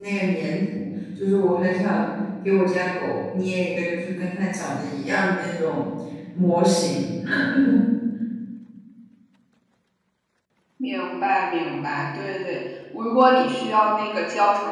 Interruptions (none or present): none